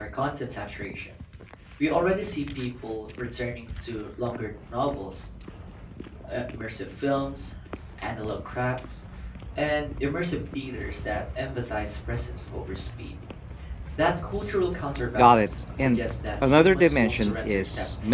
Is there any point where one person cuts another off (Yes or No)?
Yes